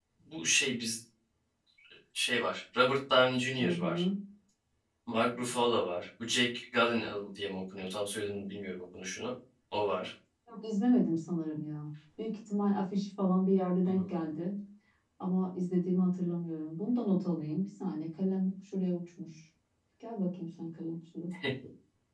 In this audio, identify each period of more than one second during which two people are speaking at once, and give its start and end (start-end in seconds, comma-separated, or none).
none